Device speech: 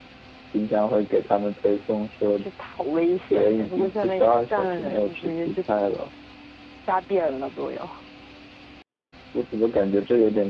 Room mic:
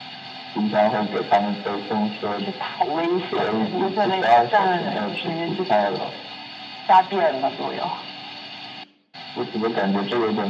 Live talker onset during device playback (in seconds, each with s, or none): none